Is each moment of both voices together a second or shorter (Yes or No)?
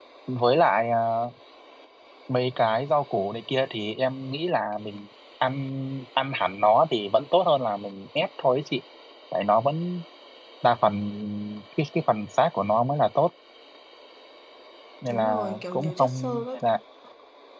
No